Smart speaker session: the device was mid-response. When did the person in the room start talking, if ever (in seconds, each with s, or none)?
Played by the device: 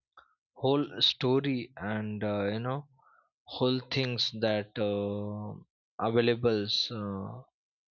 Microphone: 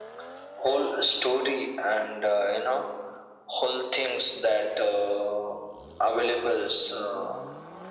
none